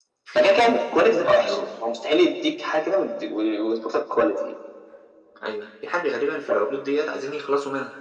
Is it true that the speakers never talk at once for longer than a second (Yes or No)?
No